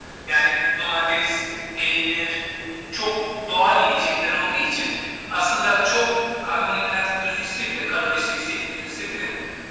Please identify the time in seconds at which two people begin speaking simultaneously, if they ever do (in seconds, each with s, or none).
none